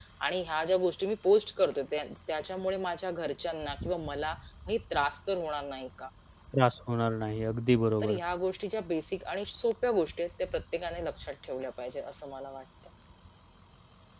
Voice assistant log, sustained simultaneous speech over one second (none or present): none